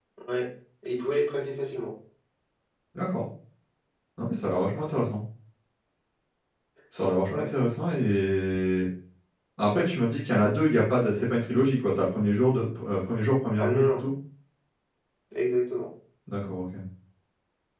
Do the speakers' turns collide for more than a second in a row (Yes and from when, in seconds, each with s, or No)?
No